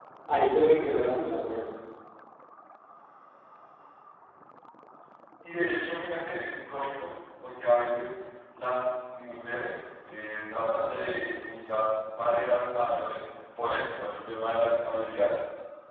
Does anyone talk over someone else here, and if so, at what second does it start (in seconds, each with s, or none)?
none